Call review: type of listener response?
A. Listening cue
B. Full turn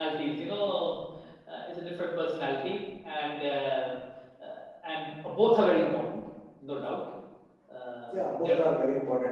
B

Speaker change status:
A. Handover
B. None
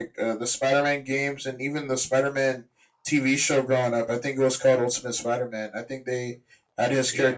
B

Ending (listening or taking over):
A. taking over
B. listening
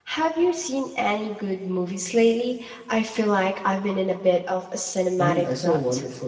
A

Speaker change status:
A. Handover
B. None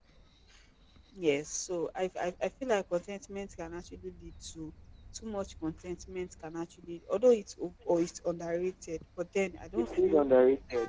A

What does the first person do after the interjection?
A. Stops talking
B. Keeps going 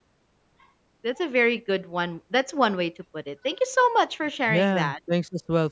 A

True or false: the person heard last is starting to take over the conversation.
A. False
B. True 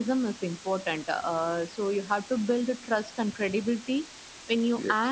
A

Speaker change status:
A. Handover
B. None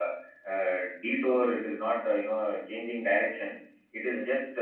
B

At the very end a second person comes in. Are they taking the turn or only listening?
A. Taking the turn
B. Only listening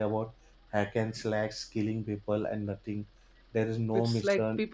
A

